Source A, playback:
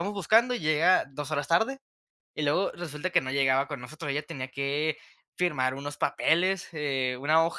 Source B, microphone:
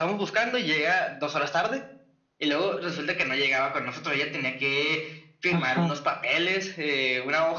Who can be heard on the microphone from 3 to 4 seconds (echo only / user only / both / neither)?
echo only